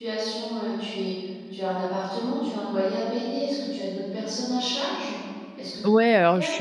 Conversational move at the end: taking over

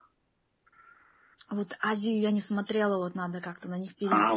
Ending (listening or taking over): taking over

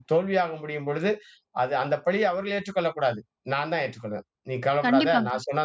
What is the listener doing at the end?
listening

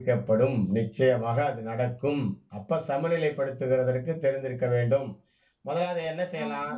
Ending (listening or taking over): taking over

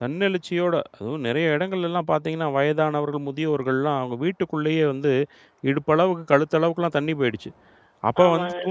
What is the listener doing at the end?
listening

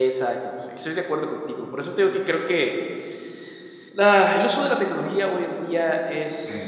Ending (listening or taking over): listening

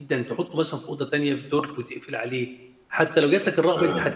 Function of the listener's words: listening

